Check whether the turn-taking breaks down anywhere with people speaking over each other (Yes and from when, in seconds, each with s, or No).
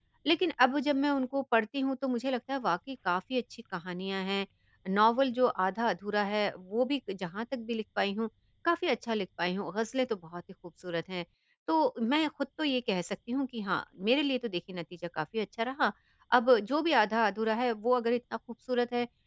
No